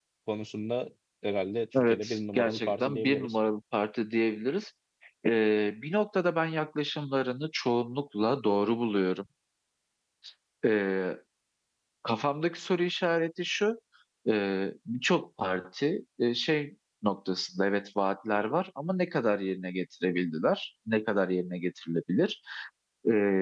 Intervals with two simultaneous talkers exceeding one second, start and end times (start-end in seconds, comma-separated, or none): 1.8-3.4